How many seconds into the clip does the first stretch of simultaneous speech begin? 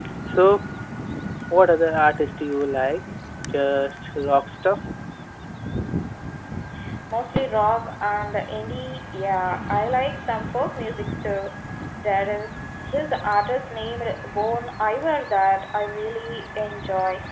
none

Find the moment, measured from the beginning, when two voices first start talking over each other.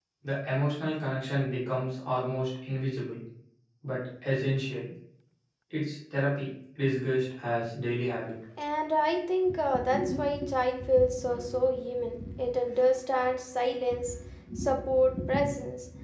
none

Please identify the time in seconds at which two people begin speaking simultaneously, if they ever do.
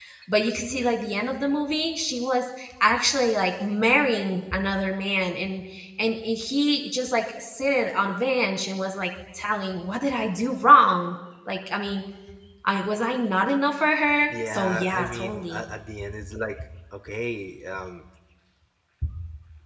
14 s

